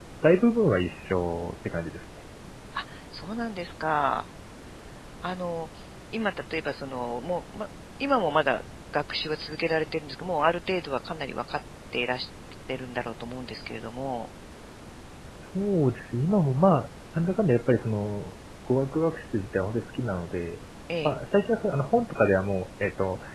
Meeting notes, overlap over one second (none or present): none